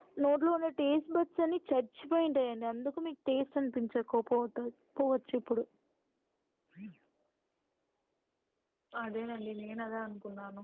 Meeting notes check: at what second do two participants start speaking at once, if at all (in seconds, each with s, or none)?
none